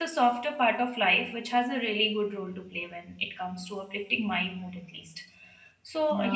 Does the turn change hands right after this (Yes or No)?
No